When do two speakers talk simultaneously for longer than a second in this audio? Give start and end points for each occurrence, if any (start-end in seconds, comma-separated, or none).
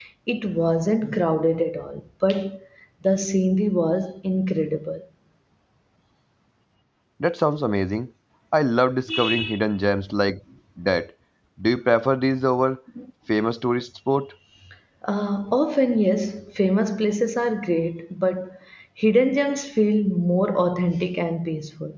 none